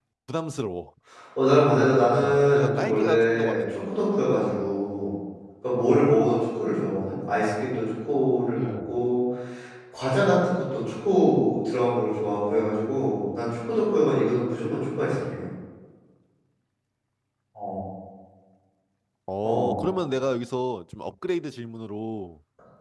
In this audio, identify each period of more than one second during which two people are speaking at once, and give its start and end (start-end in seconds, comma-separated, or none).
2.2-3.8